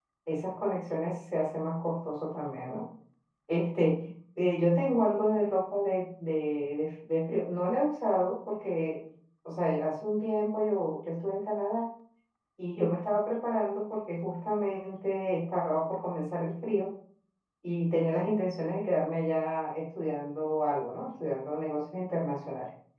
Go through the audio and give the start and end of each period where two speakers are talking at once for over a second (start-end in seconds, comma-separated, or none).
none